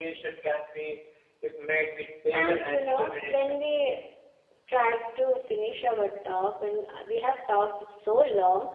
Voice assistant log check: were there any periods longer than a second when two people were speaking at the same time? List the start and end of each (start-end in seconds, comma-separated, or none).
2.3-3.5